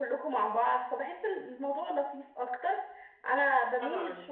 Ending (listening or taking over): listening